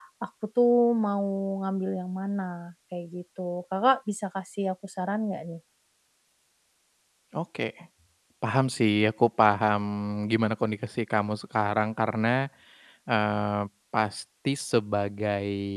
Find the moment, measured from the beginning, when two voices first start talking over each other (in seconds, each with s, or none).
none